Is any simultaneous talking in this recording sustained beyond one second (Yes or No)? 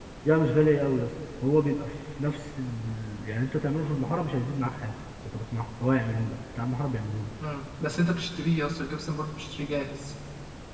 No